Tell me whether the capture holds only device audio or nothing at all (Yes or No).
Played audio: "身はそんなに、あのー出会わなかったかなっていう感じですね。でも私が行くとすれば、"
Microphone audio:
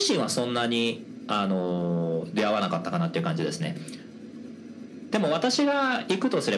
Yes